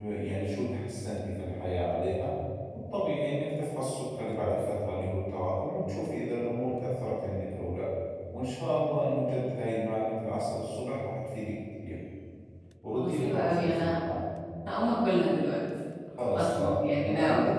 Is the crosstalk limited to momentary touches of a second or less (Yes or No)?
No